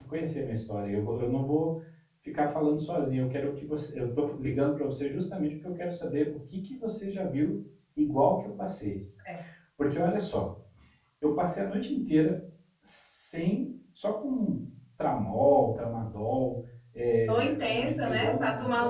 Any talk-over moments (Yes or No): Yes